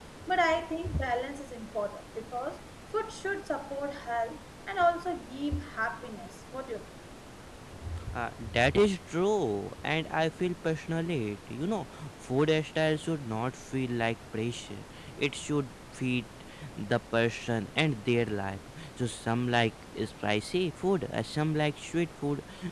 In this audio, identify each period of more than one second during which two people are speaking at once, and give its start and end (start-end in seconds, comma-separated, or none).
none